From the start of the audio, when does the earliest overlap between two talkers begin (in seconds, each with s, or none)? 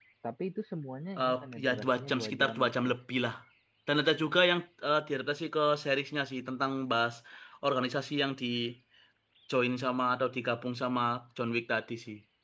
1.2 s